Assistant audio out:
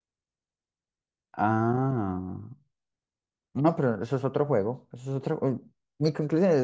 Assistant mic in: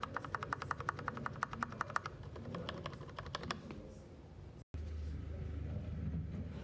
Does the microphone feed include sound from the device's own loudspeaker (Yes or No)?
No